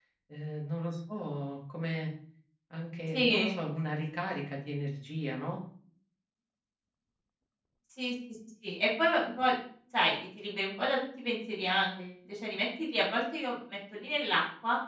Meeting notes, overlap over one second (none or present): none